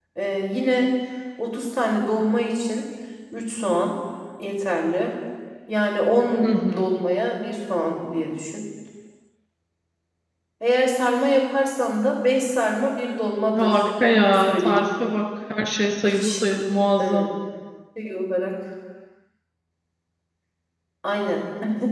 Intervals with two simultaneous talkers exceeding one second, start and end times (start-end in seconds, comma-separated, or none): 13.6-14.8